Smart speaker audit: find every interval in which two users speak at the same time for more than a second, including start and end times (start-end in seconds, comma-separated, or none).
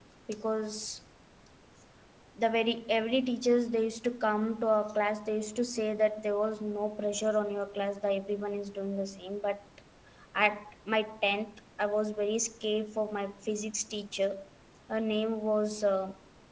none